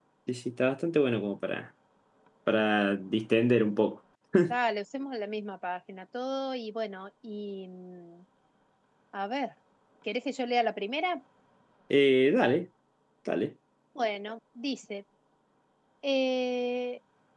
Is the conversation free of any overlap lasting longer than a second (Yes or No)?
Yes